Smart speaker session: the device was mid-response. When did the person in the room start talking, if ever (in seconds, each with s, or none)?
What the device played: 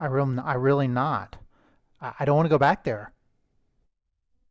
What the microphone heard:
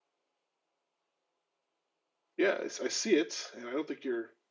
2.4 s